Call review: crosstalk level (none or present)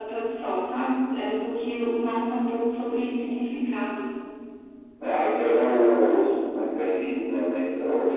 none